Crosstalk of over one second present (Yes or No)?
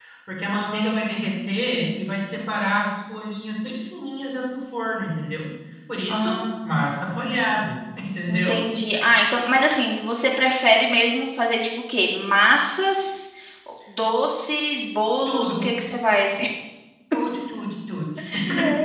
Yes